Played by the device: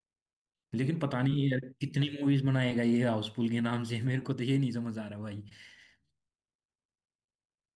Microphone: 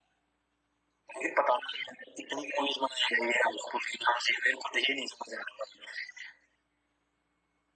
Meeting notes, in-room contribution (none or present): none